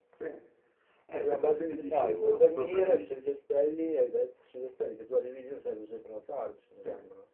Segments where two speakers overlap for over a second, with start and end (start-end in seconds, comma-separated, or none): 1.1-3.2